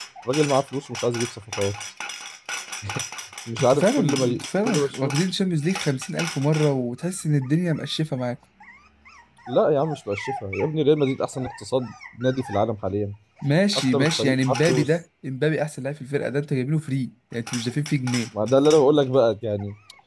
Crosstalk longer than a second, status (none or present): present